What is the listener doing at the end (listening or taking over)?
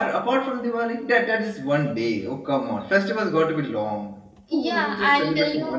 taking over